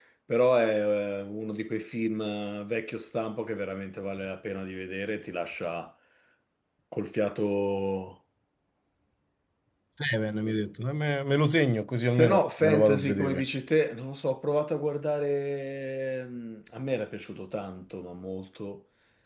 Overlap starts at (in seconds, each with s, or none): 12.1 s